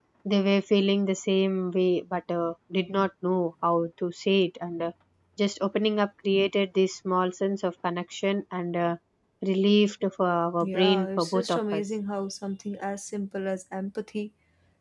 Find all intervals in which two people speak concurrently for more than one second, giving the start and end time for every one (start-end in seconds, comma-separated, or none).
10.6-11.8